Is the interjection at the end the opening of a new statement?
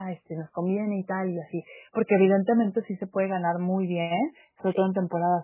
No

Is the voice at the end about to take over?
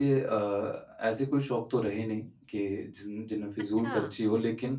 No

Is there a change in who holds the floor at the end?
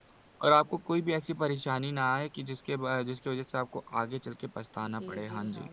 Yes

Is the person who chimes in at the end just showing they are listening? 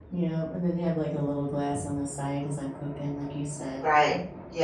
No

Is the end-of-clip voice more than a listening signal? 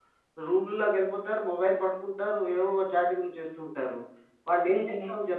No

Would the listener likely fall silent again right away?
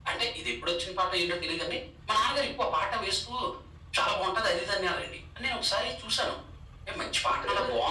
Yes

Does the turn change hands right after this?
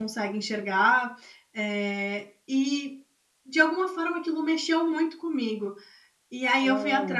No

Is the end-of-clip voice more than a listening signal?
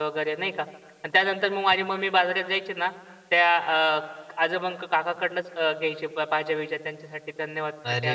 Yes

